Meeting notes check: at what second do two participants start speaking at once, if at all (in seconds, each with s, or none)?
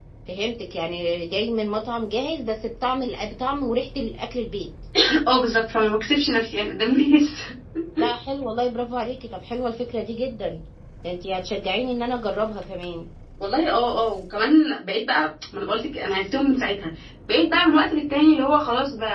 none